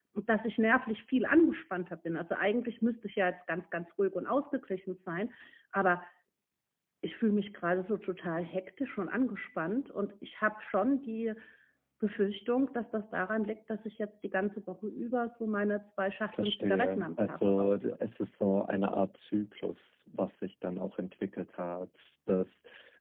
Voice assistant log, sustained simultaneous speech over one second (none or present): present